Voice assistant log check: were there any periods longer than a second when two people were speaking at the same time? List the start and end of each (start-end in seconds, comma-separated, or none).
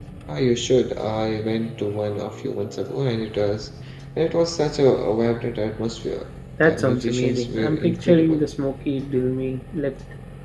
6.6-8.4